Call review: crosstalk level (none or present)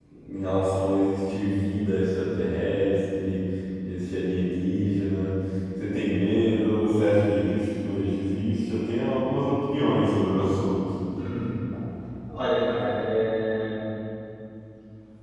none